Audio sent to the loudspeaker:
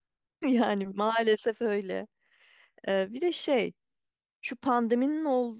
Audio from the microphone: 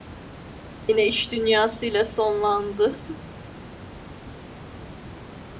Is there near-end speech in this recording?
Yes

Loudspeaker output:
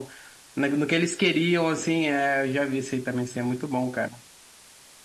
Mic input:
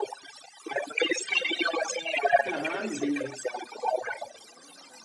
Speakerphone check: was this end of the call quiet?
No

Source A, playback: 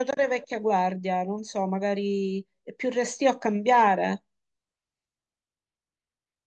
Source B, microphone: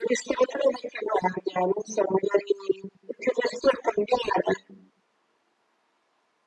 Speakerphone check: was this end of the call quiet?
Yes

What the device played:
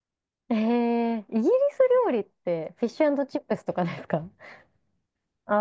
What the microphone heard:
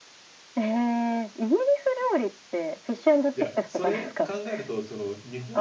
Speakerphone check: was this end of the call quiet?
No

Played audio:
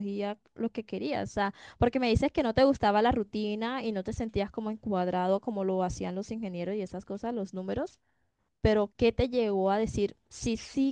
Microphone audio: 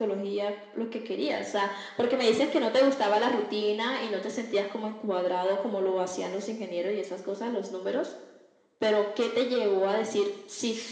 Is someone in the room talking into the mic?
No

